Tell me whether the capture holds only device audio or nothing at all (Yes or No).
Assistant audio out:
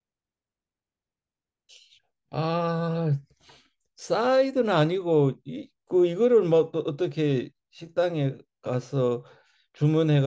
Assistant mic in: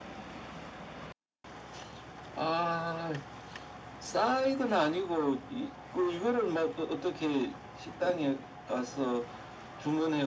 Yes